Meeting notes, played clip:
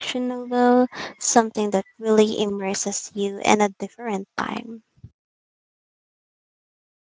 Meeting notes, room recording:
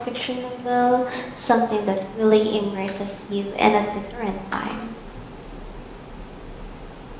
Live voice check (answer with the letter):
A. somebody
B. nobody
B